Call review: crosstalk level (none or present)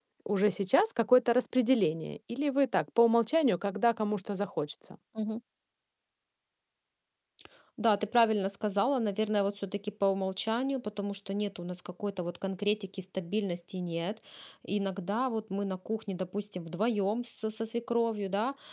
none